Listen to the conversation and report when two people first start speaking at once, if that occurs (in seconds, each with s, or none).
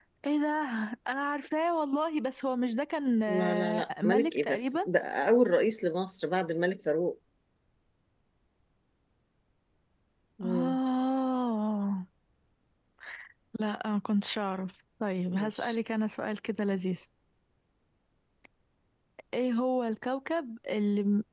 3.3 s